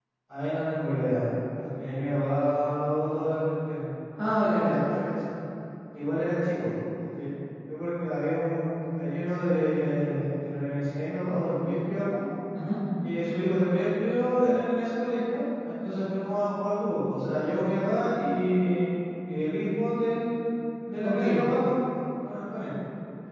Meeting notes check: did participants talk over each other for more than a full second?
No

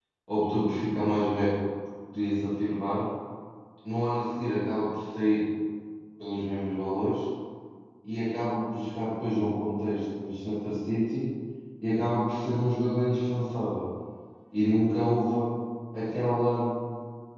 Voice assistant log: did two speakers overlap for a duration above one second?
No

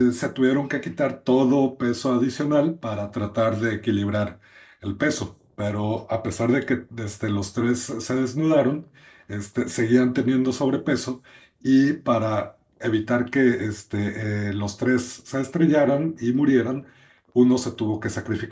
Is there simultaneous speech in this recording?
No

